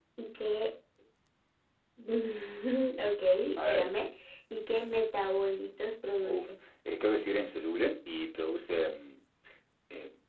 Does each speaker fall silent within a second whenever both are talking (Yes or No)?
Yes